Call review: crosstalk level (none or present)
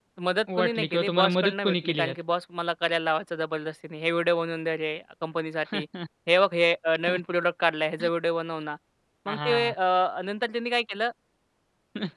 present